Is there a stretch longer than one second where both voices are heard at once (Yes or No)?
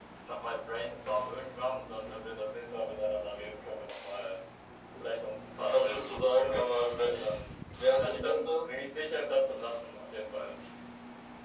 Yes